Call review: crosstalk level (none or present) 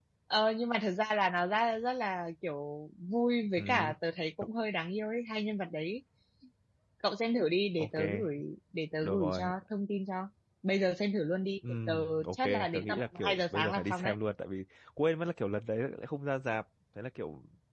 present